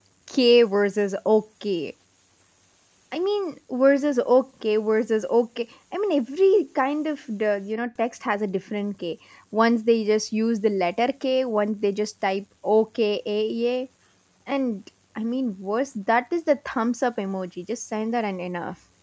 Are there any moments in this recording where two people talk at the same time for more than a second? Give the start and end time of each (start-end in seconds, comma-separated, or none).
none